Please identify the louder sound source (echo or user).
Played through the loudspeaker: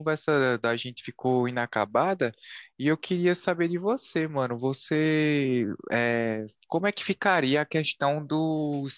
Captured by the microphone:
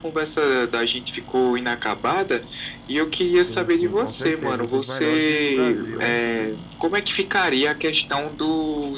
echo